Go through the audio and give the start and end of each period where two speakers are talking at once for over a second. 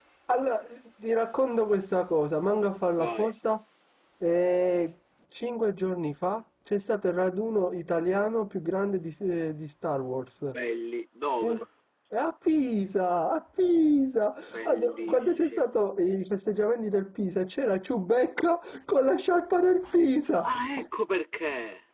14.5-15.8

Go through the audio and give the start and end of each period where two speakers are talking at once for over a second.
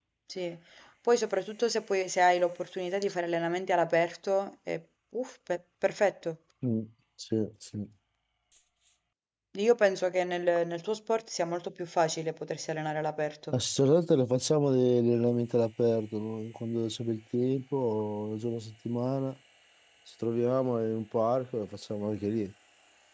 none

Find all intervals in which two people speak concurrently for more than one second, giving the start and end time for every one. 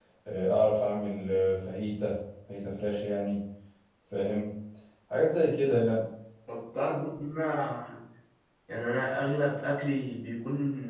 none

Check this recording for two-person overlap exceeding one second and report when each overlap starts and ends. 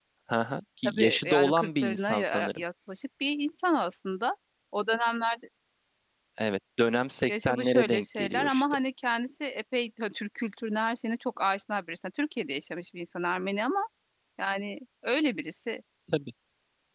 0.8-2.6, 7.3-8.6

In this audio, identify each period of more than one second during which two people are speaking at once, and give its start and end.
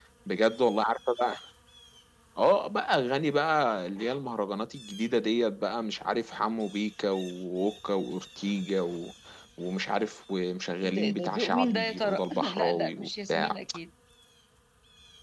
10.8-13.6

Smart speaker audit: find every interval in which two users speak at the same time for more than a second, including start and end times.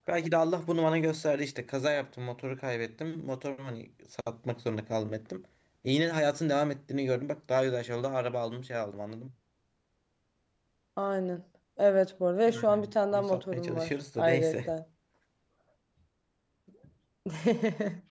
12.5-14.7

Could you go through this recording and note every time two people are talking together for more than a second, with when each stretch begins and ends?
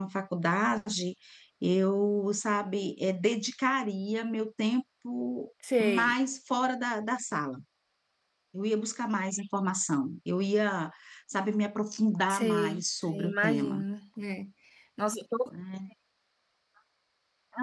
12.3-13.8

